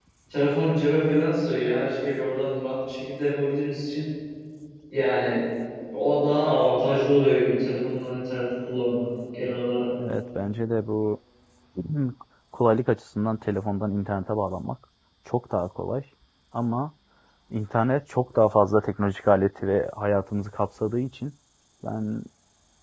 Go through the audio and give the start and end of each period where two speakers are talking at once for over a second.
none

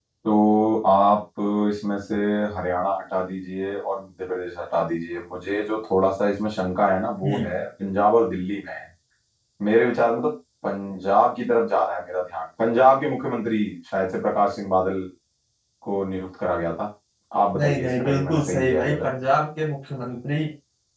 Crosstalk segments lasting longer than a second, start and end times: 17.6-19.1

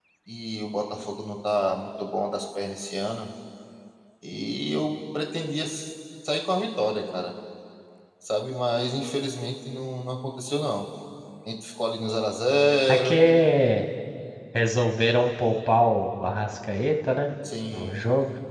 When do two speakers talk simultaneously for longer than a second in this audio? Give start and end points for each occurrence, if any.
none

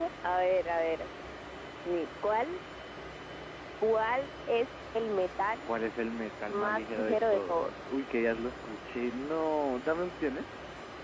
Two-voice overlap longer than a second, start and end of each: 6.5-7.7

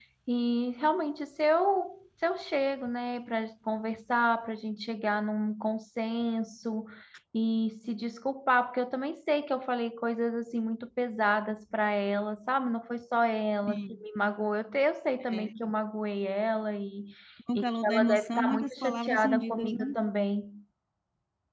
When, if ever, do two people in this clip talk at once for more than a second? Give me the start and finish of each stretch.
17.6-20.0

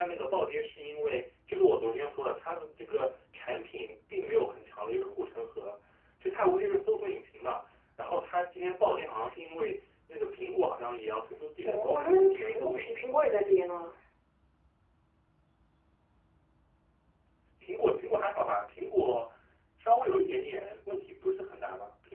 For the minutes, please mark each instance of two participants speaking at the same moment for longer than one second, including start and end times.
11.7-13.2

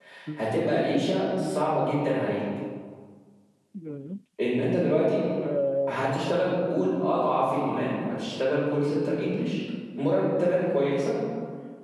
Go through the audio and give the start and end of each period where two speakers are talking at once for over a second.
none

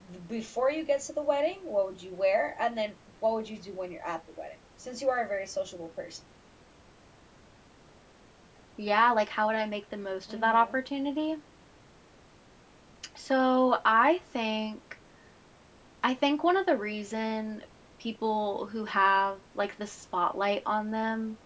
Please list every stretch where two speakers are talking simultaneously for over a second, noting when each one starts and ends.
none

